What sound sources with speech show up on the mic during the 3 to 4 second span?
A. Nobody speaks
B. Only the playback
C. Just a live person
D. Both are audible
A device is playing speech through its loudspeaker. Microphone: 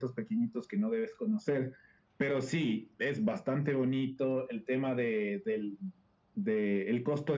B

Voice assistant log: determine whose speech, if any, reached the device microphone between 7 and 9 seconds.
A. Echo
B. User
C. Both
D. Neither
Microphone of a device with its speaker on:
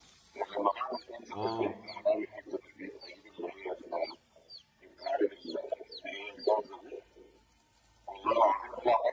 A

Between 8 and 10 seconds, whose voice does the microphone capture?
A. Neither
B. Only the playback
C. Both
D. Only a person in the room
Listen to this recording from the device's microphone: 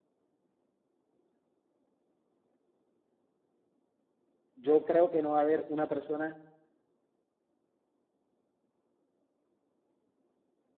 A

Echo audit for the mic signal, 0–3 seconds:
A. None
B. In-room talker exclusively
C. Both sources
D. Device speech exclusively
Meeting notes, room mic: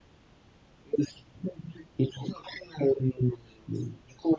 D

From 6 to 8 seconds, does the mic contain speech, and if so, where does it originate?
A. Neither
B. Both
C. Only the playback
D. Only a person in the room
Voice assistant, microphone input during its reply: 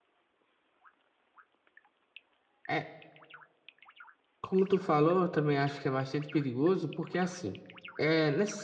D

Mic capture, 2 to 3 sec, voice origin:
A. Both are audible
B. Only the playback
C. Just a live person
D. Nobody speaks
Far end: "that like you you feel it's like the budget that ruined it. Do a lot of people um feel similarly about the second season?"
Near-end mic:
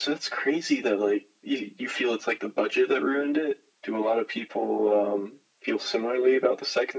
B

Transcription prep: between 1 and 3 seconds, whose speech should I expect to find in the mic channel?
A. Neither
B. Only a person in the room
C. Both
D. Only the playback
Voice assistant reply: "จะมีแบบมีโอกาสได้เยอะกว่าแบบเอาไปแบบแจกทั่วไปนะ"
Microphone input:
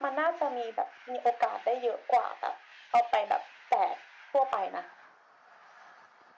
D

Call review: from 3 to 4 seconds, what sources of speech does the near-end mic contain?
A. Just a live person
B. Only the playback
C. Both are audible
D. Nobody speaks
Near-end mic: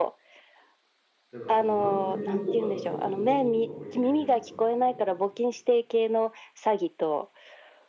C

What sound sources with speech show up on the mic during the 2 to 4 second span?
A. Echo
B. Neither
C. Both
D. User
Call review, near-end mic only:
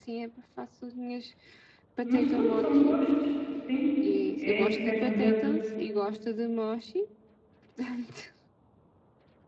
C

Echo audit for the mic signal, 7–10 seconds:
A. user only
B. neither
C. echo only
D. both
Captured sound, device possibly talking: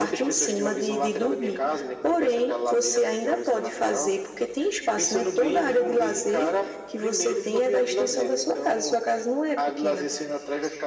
C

